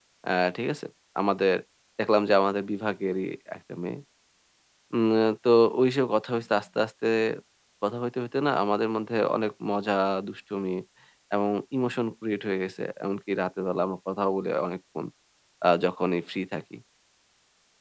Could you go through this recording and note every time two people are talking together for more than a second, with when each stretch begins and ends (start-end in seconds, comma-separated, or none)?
none